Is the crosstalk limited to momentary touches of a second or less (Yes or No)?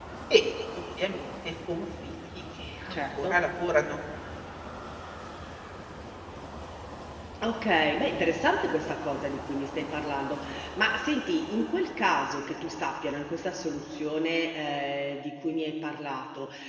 Yes